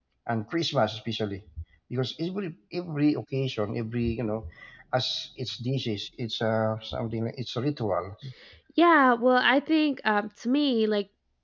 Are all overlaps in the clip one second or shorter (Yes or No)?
Yes